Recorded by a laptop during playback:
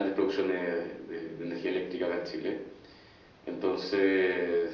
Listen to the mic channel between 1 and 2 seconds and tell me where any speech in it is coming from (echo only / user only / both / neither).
echo only